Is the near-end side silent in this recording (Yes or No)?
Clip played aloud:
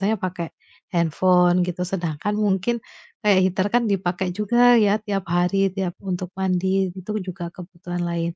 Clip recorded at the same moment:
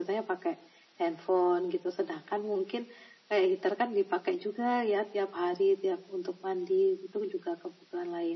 Yes